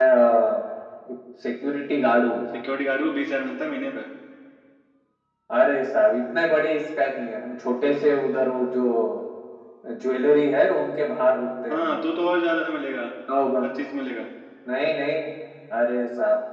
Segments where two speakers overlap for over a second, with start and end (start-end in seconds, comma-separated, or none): none